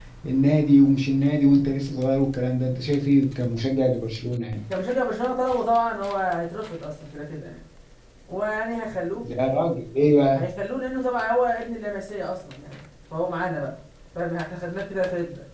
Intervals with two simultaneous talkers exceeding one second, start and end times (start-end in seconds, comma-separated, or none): none